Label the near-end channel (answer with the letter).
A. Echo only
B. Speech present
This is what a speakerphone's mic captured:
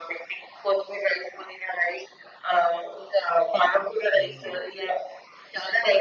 B